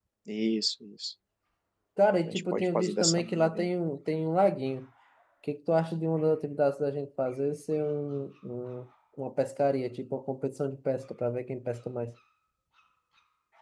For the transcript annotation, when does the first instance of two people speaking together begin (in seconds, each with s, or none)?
2.3 s